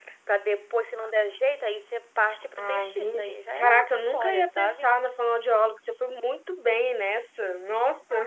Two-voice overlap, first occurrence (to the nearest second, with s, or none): 3 s